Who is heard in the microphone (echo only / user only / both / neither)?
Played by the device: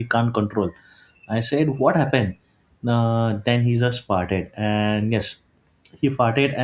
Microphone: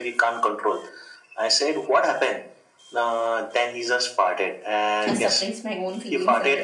both